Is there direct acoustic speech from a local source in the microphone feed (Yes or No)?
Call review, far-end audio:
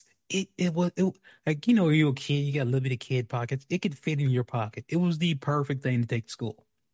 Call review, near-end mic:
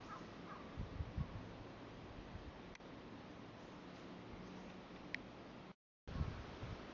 No